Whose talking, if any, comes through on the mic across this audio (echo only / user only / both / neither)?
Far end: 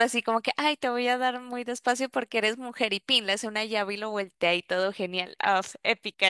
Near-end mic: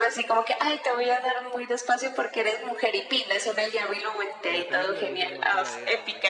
both